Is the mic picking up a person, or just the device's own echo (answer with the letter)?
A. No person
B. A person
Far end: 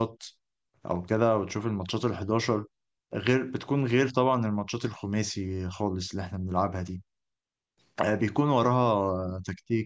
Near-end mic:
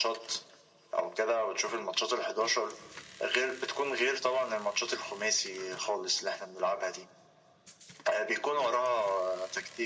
A